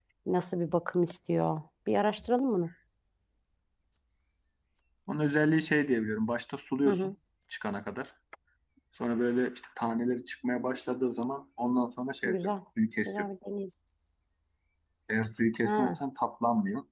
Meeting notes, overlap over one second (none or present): none